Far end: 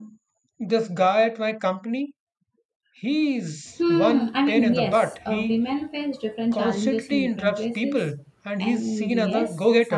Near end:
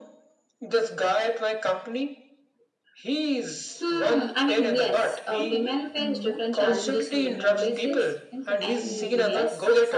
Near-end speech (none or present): present